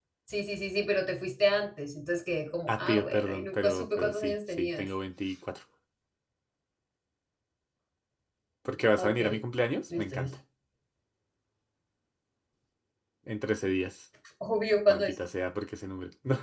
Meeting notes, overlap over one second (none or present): present